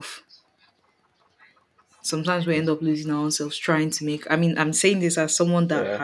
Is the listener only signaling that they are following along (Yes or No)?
Yes